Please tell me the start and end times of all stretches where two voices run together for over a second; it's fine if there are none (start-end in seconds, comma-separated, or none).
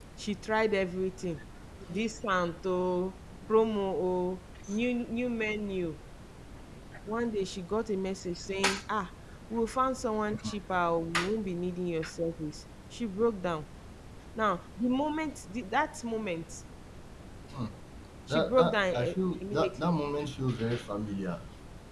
18.3-20.0